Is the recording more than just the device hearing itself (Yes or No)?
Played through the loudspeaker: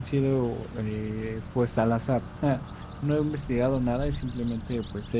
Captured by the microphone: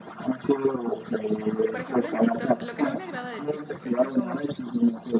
Yes